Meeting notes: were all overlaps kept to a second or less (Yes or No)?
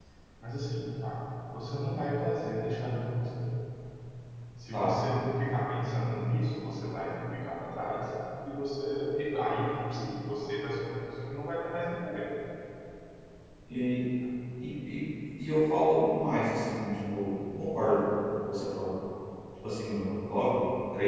Yes